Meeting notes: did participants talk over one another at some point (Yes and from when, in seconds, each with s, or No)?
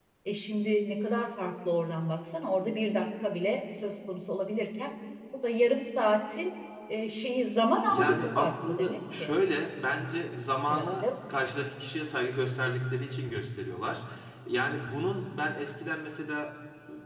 Yes, from 7.9 s